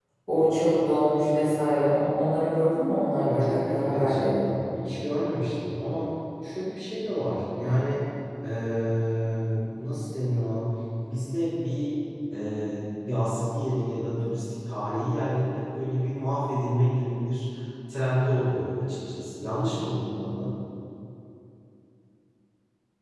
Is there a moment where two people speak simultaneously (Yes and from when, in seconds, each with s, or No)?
Yes, from 3.2 s